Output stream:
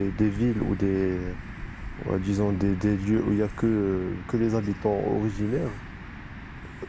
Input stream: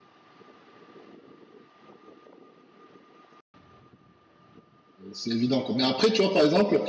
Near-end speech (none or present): present